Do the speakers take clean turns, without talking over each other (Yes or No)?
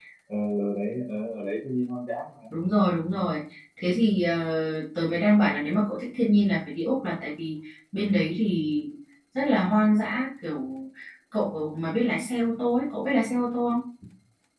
Yes